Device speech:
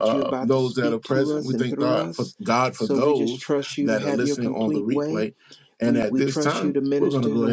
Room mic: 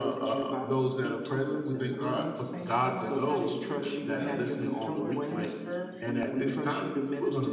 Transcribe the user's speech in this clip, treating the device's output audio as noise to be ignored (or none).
thank you so much, Pastor CB, and I want to transfer